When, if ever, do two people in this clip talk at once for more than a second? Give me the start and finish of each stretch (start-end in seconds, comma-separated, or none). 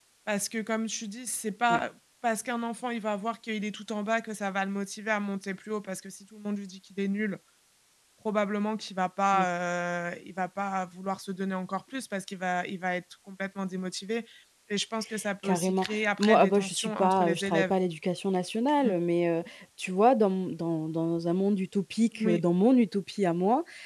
15.4-17.7